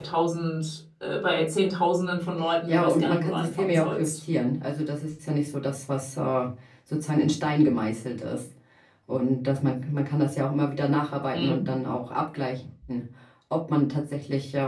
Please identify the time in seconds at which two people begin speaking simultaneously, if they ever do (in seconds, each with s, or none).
2.7 s